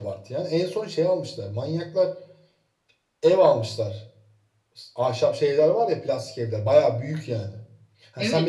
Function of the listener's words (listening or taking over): taking over